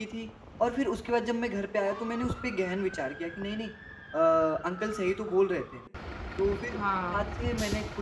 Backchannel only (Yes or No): Yes